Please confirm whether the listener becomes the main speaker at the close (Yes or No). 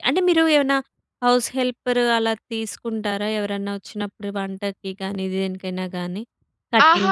Yes